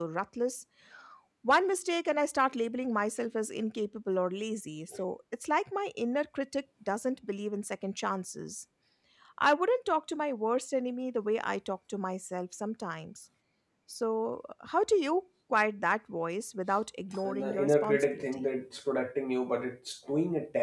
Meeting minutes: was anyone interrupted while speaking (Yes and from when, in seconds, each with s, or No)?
Yes, from 17.1 s